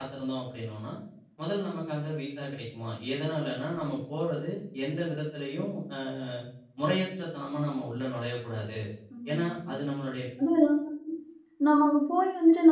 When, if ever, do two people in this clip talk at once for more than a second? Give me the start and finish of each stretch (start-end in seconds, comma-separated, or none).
none